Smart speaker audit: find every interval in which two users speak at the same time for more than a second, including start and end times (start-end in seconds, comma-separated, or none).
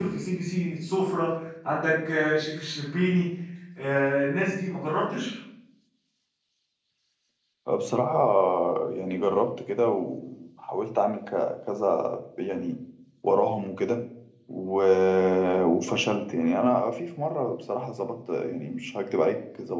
none